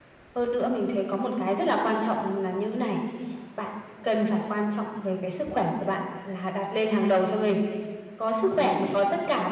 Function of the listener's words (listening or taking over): listening